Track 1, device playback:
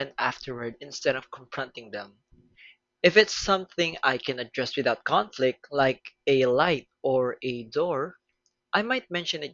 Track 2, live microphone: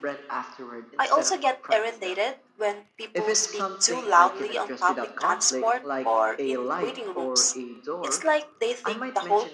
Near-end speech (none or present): present